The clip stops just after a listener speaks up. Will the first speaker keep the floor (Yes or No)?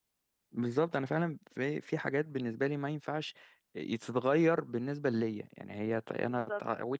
Yes